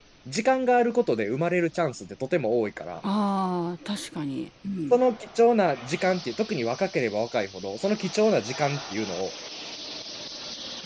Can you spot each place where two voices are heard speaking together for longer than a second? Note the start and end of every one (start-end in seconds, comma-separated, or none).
none